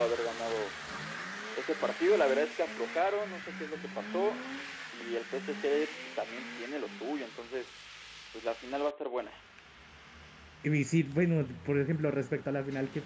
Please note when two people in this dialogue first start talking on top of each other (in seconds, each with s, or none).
none